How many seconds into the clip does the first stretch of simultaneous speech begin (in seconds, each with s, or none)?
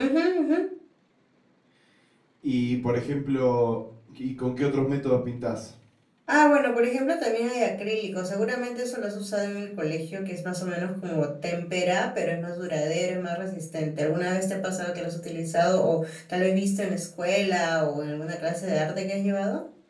none